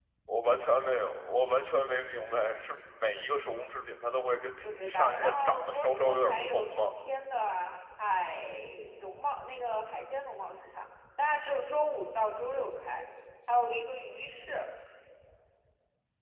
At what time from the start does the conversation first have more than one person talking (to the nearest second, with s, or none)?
5 s